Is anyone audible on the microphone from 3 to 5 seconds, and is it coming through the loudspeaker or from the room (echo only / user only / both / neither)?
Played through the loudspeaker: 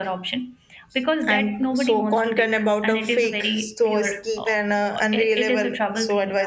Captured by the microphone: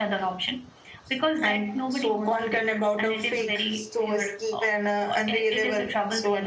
echo only